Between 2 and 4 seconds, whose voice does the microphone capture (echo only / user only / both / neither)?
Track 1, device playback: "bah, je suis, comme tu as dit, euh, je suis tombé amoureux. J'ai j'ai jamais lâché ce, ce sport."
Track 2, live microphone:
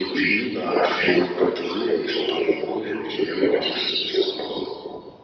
echo only